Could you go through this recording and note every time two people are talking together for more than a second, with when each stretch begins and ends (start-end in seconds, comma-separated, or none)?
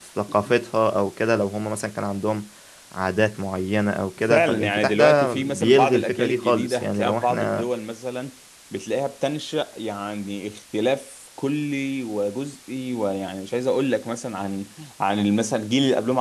4.2-7.7